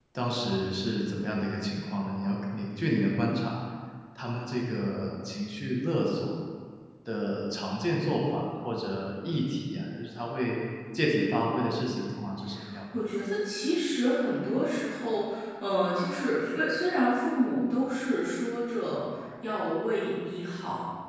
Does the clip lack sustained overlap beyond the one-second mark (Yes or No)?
Yes